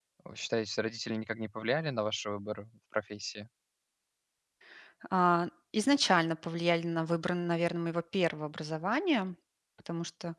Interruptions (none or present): none